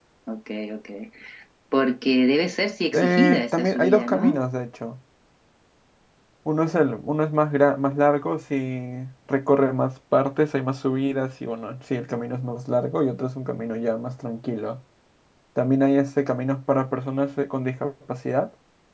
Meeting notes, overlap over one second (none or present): present